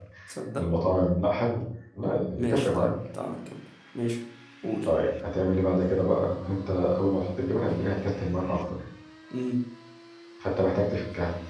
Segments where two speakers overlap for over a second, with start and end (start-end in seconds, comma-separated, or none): none